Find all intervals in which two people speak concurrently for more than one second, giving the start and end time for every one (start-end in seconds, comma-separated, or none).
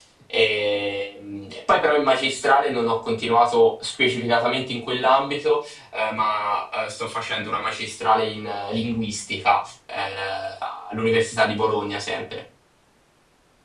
none